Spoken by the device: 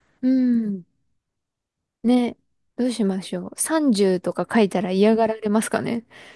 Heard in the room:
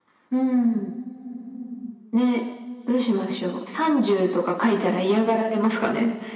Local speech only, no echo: none

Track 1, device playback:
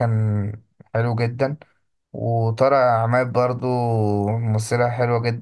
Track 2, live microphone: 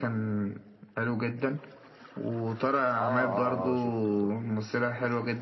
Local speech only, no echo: آه آه آه شفته شفته

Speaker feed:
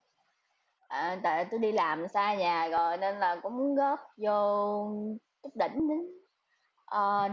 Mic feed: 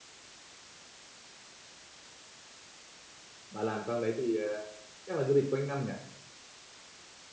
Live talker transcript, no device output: bà làm trong đấy thì ờ, chắc là du lịch quanh năm nhỉ

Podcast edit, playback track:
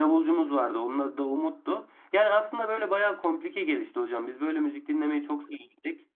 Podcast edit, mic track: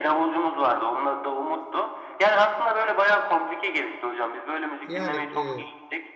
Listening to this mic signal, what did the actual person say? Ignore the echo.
Yani e,

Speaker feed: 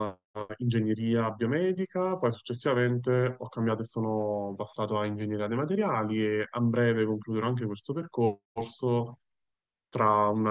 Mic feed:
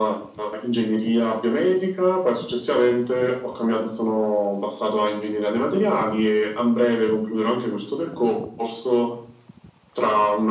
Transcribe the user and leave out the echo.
none

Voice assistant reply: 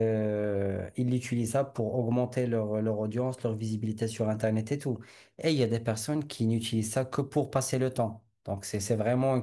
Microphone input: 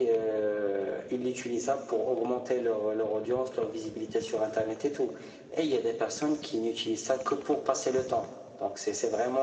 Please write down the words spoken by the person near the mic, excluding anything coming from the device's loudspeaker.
none

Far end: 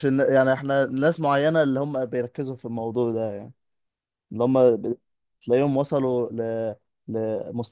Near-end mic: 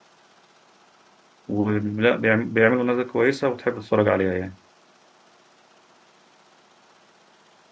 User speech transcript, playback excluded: ولا بيعم- بيعملوا نتائج كويسه وتحب تتفرج عليها يعني

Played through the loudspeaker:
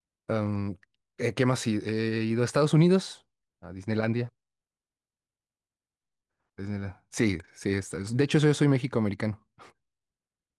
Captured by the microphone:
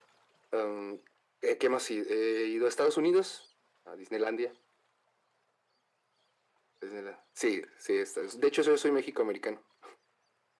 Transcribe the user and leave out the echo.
none

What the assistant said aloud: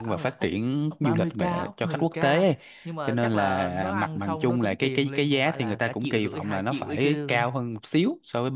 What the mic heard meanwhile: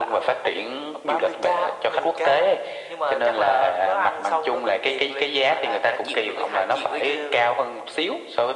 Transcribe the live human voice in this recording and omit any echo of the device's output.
none

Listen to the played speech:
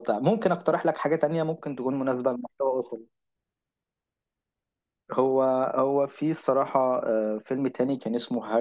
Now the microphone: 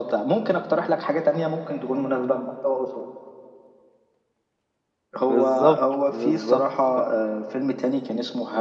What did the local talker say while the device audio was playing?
بالظبط بالظبط فعلا

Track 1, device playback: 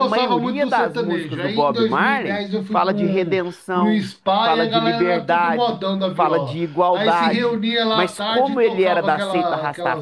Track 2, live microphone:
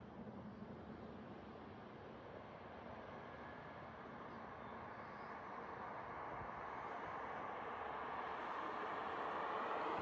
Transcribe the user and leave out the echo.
none

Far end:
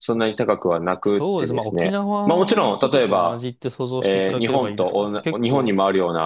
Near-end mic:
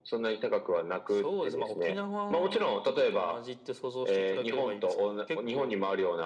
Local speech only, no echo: none

